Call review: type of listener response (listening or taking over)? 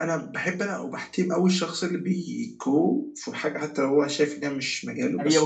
taking over